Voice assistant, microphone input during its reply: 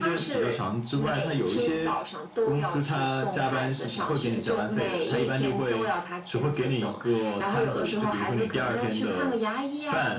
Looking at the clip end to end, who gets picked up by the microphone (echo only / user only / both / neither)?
echo only